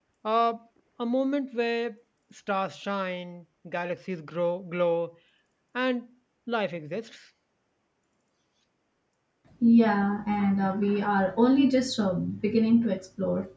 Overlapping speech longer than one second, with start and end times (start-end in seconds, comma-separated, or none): none